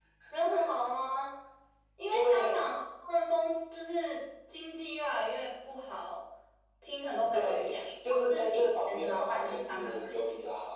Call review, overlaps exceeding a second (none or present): present